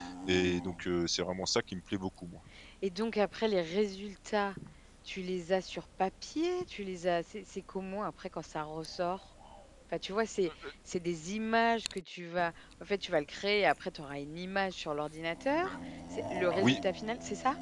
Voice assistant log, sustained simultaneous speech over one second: none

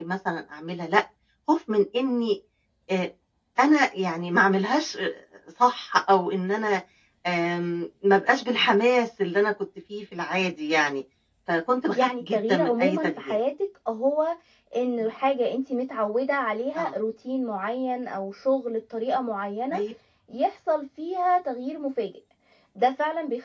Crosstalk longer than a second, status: present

